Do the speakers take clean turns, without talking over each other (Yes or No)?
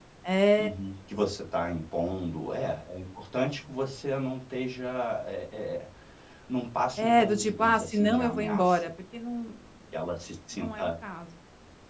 No